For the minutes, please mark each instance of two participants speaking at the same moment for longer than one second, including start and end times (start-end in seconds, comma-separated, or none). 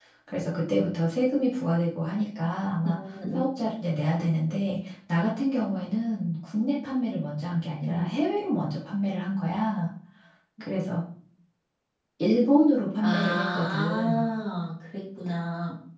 13.0-14.3